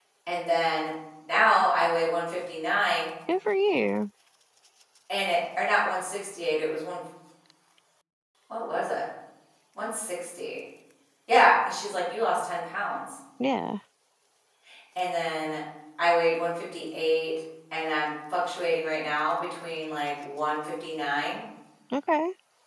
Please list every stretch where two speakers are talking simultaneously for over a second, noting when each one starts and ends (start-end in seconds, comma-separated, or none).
none